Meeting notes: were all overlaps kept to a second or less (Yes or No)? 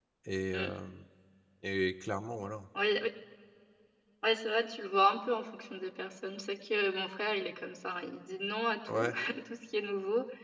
Yes